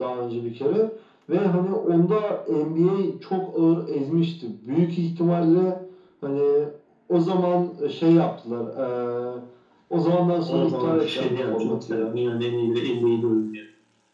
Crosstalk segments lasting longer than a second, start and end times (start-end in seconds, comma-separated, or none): 10.5-12.2